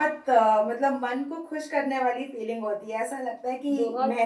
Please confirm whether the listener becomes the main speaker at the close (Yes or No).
Yes